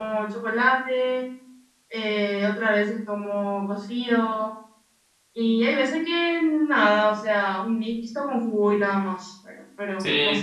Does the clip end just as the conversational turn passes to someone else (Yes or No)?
Yes